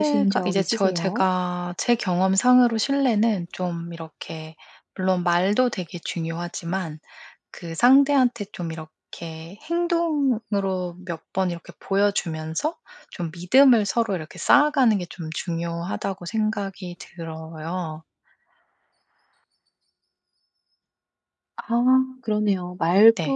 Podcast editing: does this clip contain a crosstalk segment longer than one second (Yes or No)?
Yes